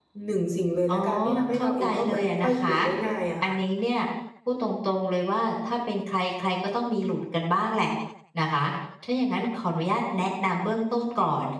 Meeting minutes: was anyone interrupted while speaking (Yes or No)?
Yes